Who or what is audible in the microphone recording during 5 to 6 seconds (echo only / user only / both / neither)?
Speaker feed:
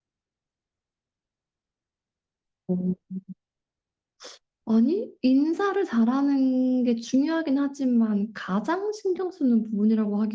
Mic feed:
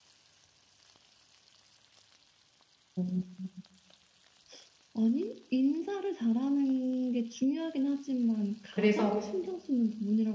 echo only